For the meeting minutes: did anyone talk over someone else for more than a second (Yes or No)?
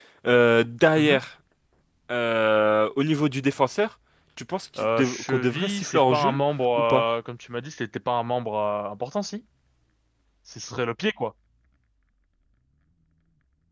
Yes